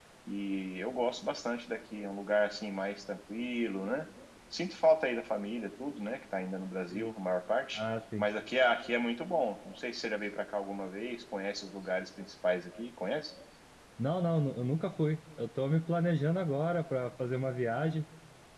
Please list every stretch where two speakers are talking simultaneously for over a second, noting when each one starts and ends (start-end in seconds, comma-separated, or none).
none